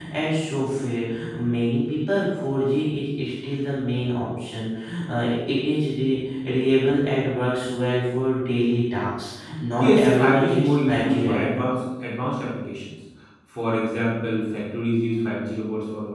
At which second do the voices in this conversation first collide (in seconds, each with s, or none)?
9.8 s